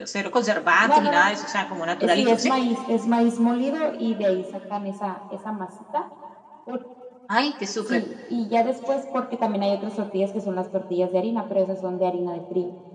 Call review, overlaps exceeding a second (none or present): none